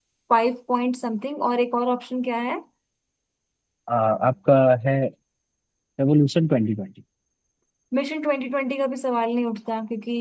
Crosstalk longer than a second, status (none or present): none